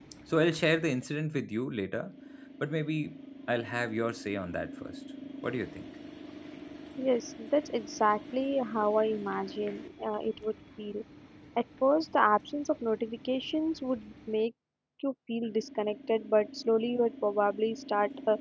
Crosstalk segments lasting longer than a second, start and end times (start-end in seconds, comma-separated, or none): none